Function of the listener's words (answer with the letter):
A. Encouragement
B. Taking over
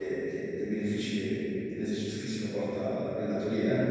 B